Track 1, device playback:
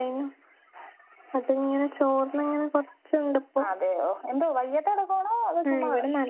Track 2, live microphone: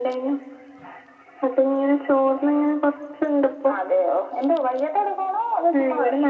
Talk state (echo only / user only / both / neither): echo only